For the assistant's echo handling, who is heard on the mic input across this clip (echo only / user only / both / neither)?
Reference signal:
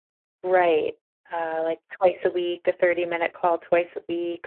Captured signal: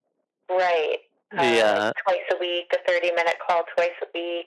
both